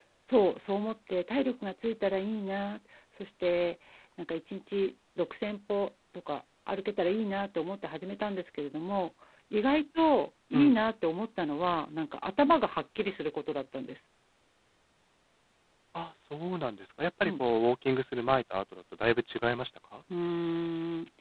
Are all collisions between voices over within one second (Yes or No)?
Yes